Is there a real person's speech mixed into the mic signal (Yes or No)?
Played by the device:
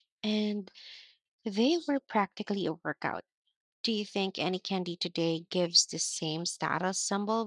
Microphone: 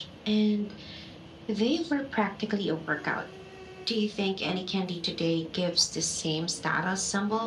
No